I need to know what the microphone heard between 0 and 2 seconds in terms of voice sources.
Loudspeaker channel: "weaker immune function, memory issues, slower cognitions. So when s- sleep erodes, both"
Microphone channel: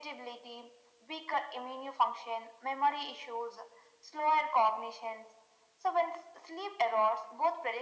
echo only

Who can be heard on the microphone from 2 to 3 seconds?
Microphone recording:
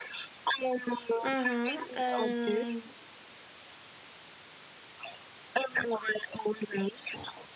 both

